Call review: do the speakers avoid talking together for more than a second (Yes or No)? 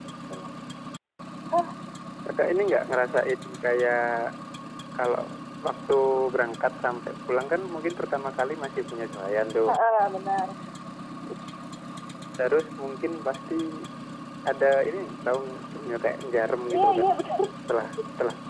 Yes